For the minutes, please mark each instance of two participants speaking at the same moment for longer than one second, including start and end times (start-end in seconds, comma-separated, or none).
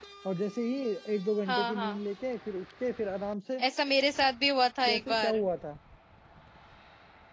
none